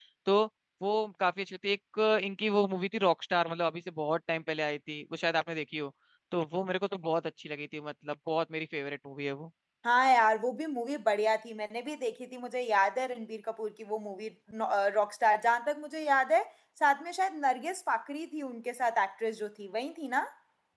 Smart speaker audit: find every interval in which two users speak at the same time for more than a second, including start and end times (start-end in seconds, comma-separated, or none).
none